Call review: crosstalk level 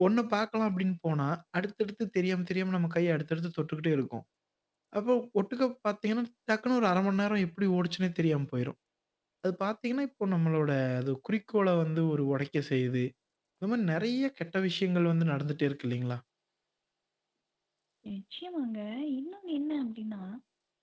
none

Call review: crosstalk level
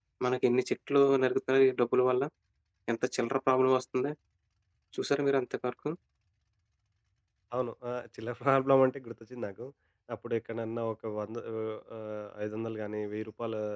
none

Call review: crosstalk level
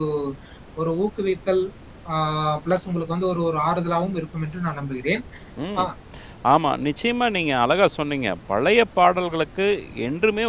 none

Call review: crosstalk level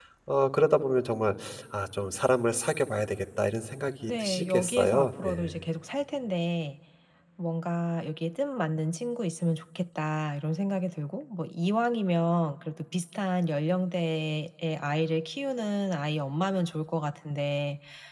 present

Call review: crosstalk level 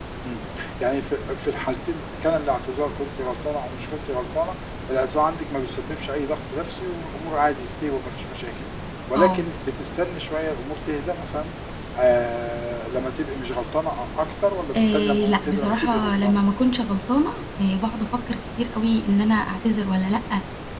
present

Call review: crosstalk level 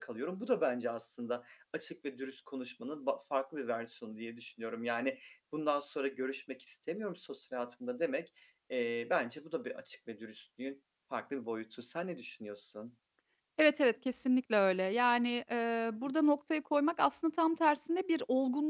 none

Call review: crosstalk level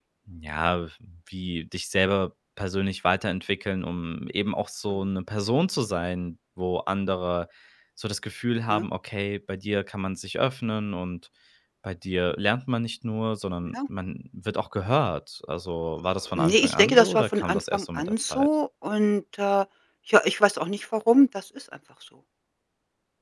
present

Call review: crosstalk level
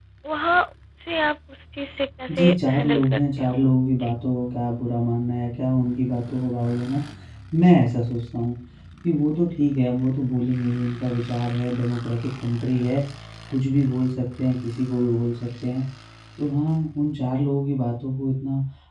present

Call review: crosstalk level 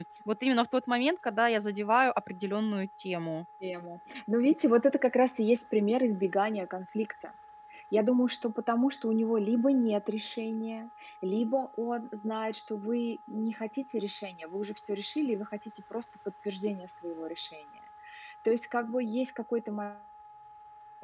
none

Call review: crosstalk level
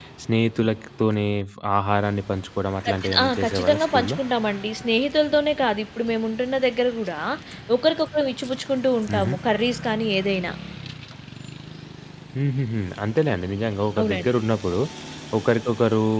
present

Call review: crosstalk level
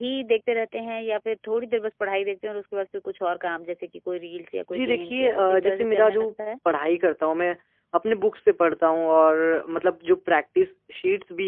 present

